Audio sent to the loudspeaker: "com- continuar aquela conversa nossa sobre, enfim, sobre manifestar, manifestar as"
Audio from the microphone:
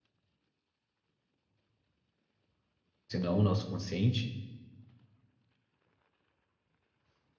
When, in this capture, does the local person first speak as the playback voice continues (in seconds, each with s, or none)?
3.1 s